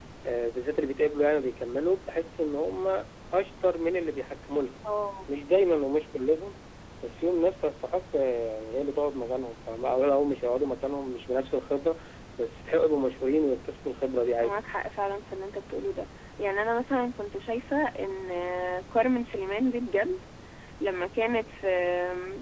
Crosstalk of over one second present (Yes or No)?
No